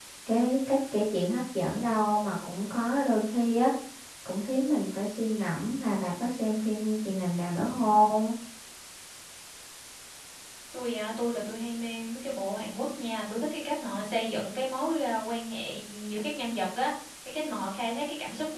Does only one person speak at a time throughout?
Yes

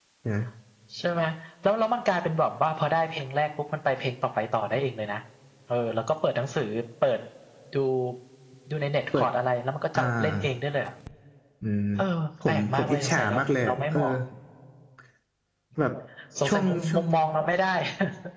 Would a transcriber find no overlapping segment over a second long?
No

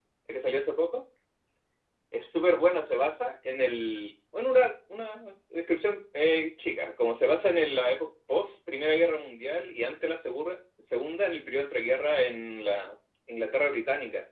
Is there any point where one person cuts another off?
No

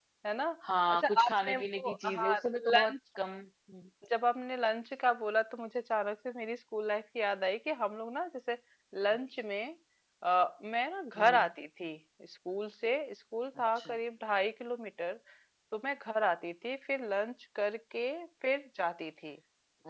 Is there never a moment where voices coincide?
No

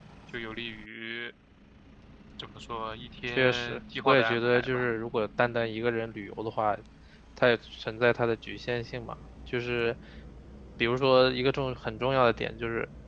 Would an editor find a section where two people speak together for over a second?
Yes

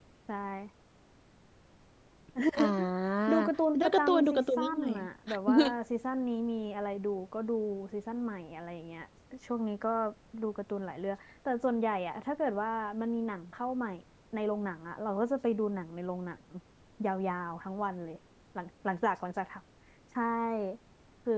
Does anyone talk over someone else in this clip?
Yes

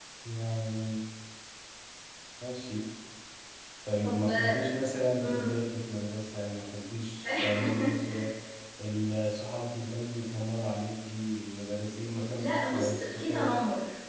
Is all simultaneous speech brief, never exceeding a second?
No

